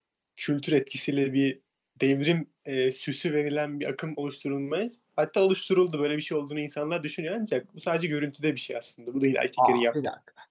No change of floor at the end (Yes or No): No